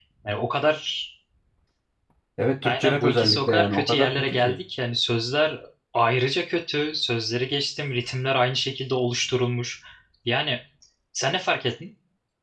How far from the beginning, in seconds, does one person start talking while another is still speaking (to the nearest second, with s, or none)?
3 s